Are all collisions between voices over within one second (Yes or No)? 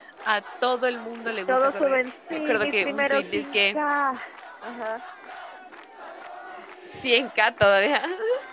No